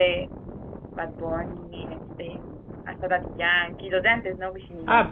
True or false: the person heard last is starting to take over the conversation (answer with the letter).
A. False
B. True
B